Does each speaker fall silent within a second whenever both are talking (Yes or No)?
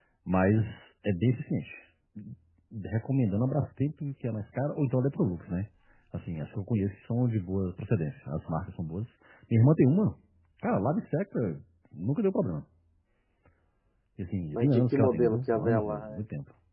No